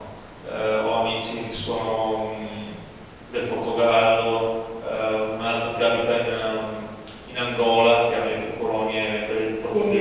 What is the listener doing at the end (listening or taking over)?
listening